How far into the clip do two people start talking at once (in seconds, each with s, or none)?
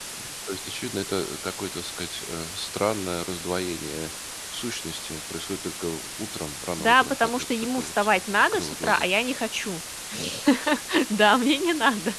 6.8 s